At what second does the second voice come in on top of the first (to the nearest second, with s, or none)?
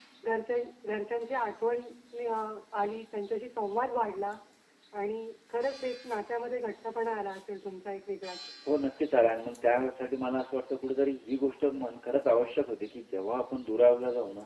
none